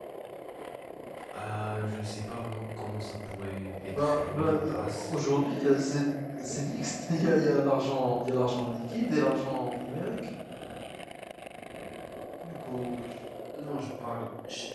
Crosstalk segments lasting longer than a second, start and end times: 3.9-5.1

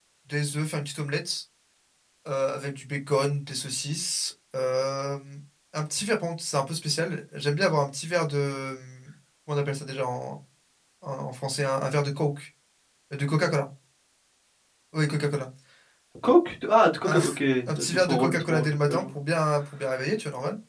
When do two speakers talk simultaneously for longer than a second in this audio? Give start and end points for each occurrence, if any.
17.8-19.0

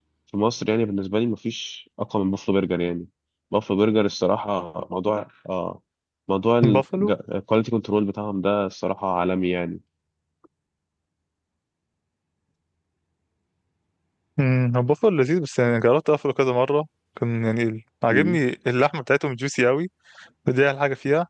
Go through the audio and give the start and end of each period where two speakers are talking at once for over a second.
none

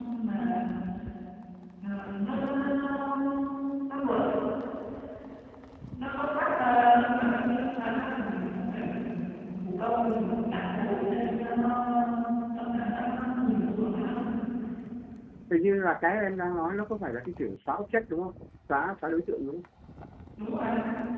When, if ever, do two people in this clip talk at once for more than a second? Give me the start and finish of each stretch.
none

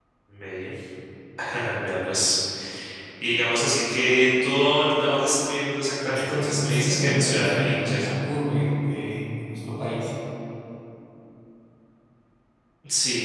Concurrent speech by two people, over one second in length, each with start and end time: 6.1-8.1

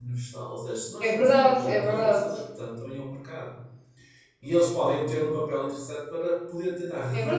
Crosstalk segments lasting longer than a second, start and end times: 1.0-2.2

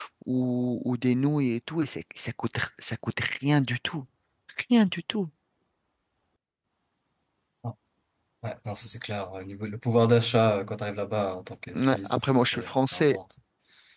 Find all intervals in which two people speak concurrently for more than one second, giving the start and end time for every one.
11.7-13.2

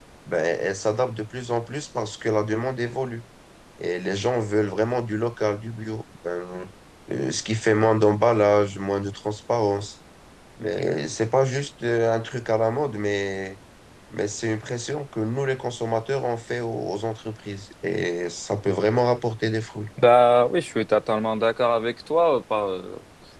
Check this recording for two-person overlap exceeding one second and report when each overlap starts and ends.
none

